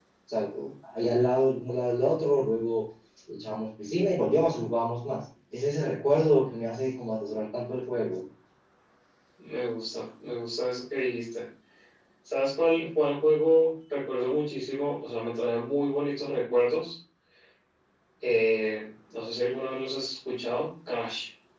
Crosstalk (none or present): none